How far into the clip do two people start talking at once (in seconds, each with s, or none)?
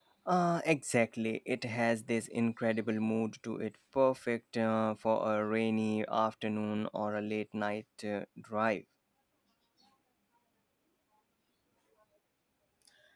none